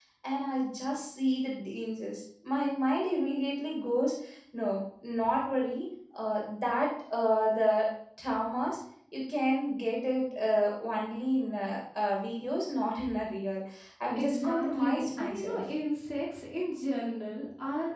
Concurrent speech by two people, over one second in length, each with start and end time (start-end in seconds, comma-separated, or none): 14.2-15.6